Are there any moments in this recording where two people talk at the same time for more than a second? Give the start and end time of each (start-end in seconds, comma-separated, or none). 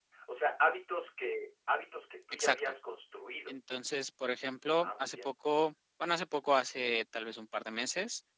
none